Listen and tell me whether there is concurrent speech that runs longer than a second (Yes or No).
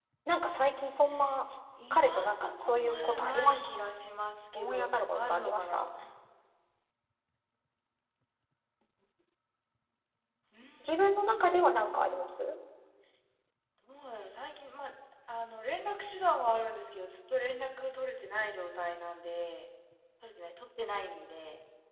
Yes